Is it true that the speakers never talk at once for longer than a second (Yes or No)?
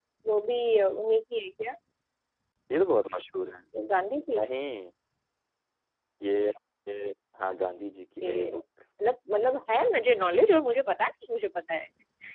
Yes